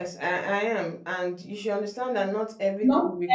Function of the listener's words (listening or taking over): listening